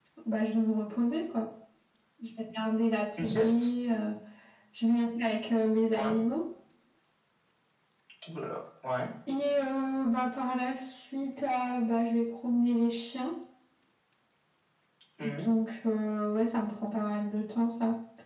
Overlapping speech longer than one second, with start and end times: none

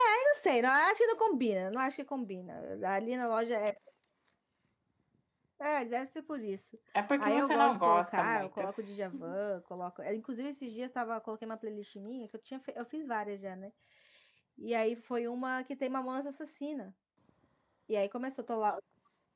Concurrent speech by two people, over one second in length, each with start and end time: 7.2-8.6

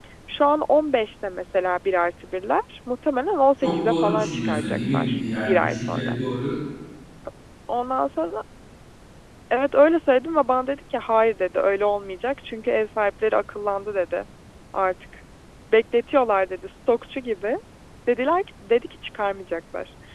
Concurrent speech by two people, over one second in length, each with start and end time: 3.6-6.1

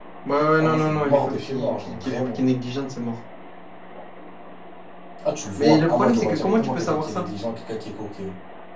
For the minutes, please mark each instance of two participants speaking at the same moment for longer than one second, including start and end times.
0.6-2.4, 5.6-7.2

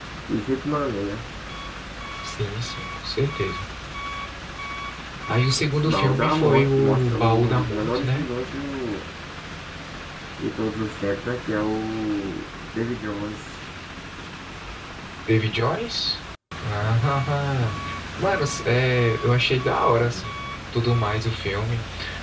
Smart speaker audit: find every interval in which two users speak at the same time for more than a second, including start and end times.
5.9-8.2

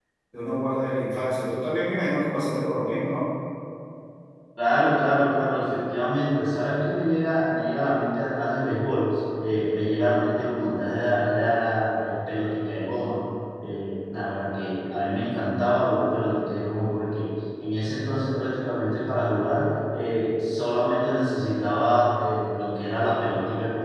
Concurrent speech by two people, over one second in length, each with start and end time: none

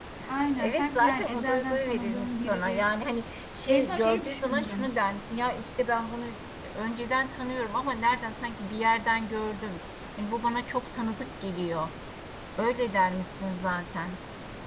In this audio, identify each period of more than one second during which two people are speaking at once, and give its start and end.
0.6-2.9, 3.7-4.9

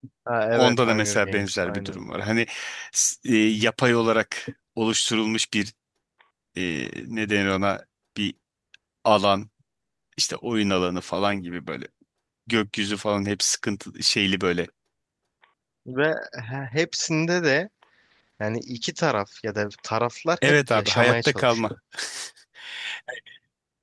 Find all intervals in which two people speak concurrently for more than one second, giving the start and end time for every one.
0.5-2.0, 20.4-21.7

